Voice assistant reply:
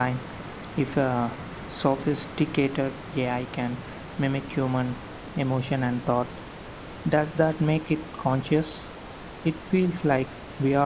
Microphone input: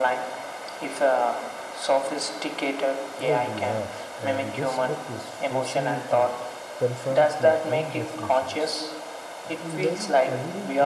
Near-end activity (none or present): present